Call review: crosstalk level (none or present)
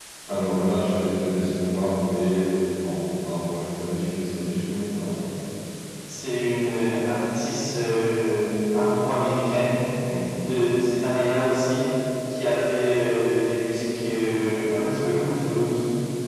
none